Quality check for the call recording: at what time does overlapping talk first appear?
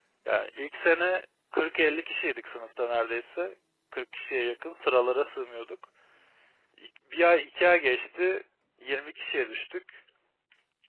none

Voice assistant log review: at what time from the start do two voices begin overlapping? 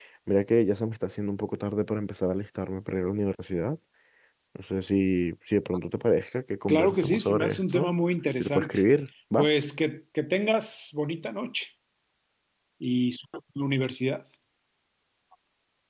6.7 s

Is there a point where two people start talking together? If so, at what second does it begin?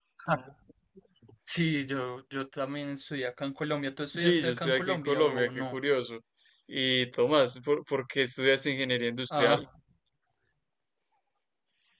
4.1 s

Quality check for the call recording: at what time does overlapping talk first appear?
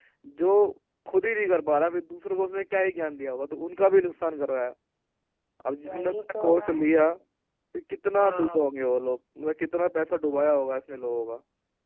5.8 s

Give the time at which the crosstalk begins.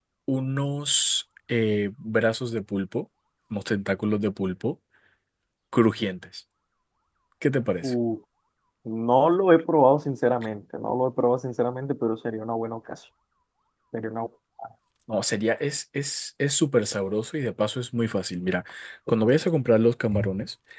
none

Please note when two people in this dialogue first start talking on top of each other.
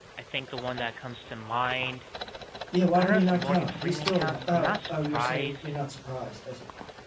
3.0 s

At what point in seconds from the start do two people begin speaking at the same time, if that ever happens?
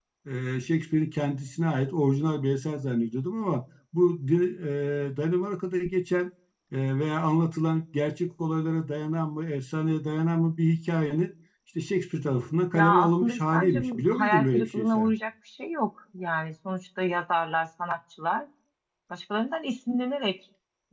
12.7 s

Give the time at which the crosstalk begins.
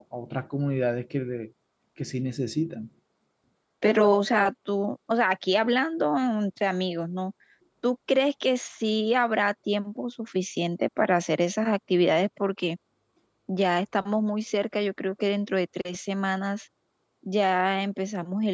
none

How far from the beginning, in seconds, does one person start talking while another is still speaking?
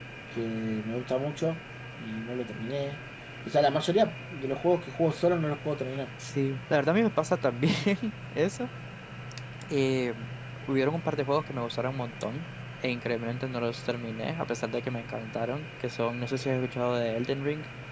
none

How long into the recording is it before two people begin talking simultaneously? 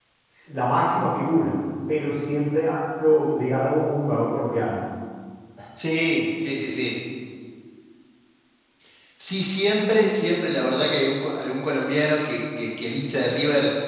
none

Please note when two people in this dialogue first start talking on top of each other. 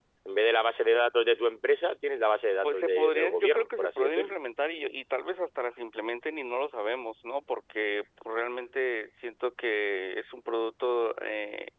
2.6 s

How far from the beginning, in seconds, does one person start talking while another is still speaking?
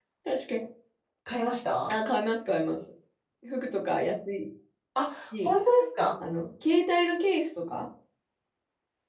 none

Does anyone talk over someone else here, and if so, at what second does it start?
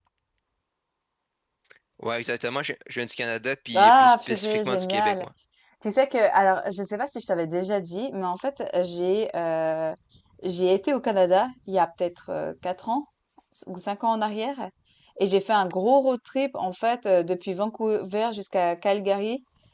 3.7 s

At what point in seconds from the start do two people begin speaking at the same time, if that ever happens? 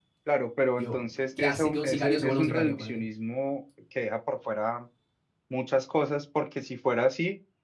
0.8 s

